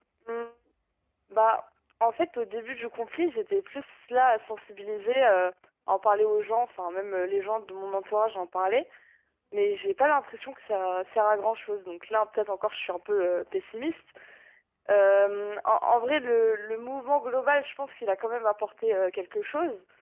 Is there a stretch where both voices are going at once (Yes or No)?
No